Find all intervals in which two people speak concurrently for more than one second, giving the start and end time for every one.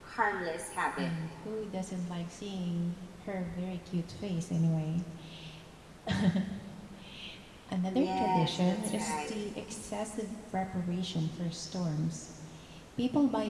7.9-9.4

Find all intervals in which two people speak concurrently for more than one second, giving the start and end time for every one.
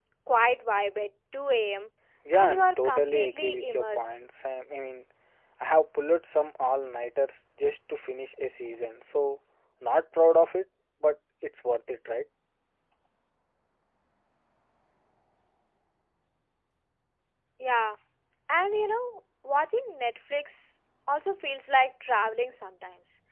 2.3-4.1

